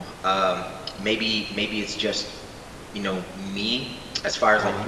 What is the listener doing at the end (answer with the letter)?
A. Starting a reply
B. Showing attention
B